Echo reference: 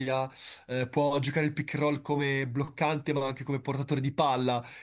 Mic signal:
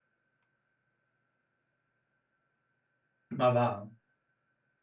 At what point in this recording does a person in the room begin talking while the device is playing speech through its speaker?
3.4 s

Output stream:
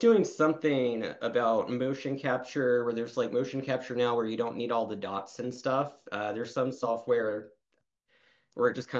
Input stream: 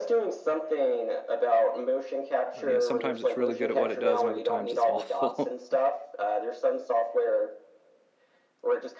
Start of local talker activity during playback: 2.6 s

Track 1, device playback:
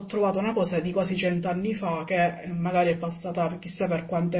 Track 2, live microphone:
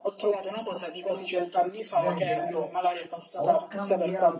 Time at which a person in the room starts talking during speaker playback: 1.9 s

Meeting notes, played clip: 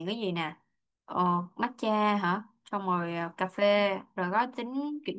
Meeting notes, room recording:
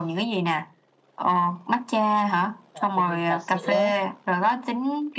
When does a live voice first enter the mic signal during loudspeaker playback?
2.7 s

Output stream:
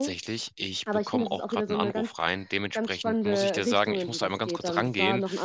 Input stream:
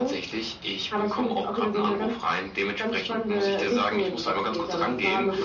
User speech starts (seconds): none

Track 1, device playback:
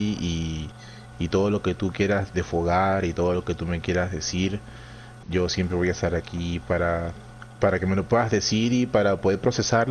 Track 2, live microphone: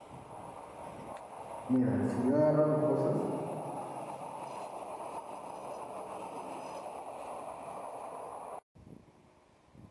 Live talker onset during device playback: 1.7 s

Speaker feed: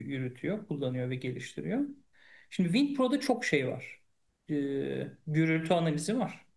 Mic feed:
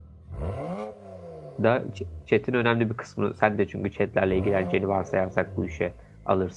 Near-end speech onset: 1.6 s

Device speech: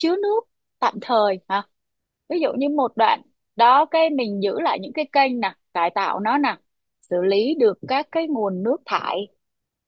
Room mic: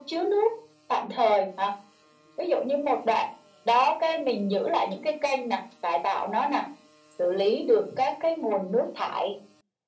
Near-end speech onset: none

